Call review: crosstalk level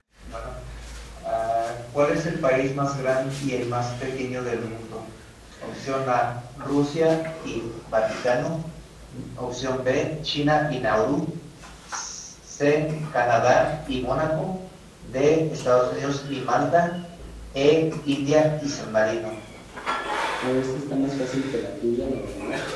none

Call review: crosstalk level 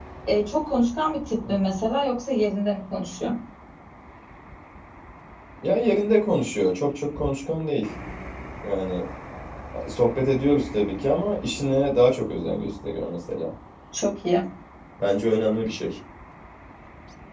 none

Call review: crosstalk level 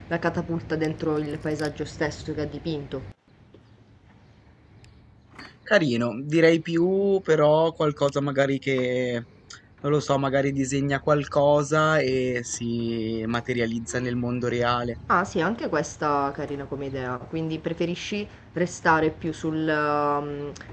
none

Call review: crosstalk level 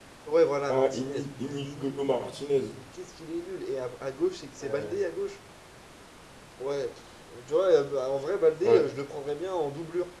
present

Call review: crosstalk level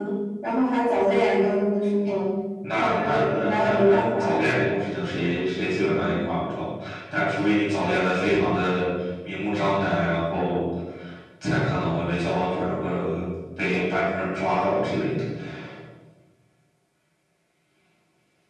present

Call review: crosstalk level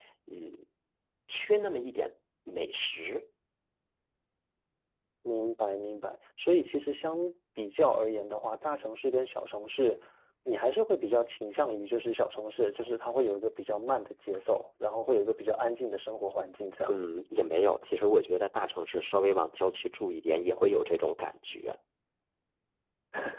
none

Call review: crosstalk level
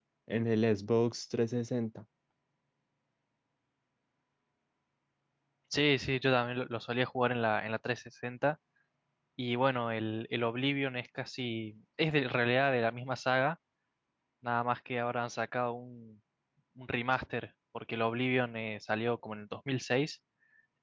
none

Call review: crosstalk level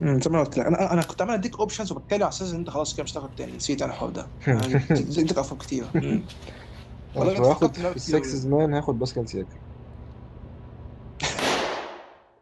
present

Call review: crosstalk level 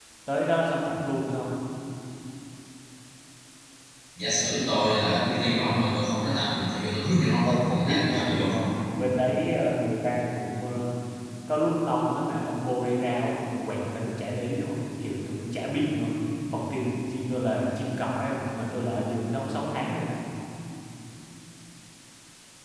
present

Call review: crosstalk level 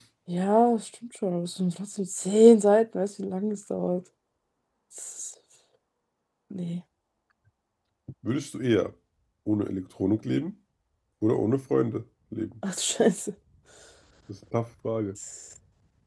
none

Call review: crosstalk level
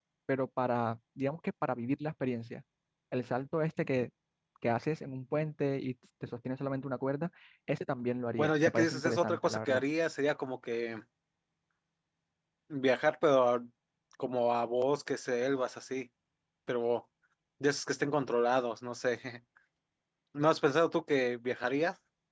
present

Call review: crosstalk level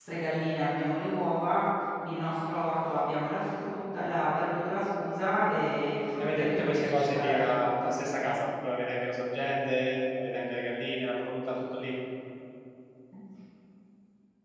present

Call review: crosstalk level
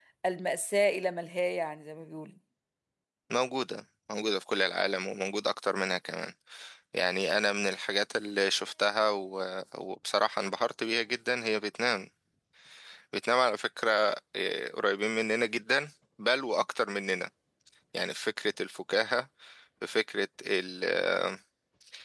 none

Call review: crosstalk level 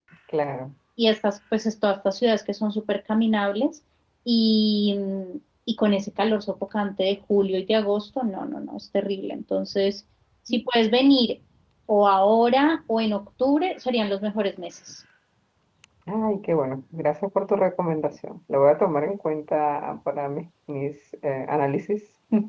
none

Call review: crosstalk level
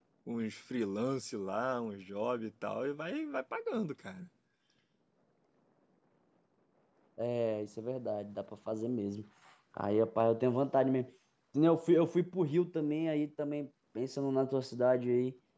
none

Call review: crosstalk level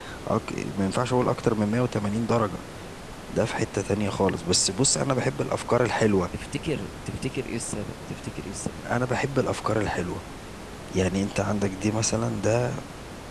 none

